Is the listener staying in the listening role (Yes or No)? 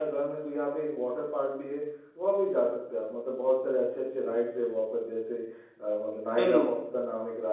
Yes